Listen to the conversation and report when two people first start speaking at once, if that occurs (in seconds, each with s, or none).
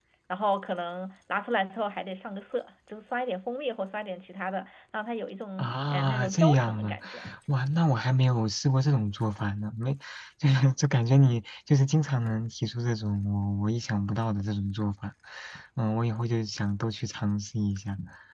5.6 s